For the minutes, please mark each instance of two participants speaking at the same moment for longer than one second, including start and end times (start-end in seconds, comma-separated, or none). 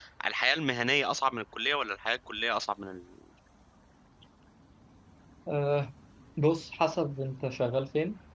none